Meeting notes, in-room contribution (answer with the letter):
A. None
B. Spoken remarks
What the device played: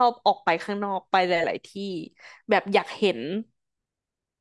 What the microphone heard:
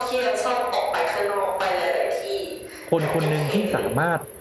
B